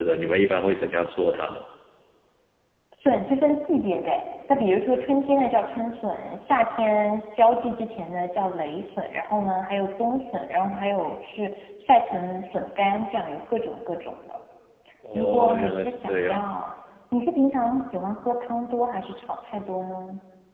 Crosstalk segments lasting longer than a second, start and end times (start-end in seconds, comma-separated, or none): 15.2-16.4